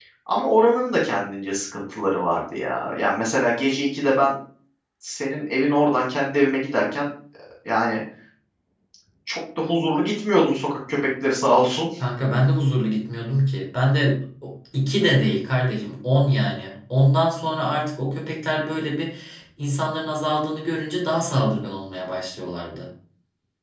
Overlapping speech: No

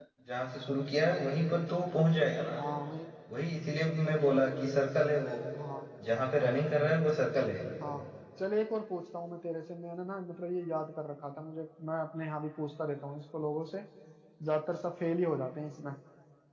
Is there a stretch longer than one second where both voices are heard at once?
No

